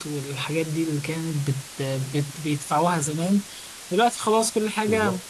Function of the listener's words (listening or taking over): listening